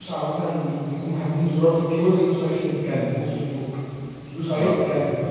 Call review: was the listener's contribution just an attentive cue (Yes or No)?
Yes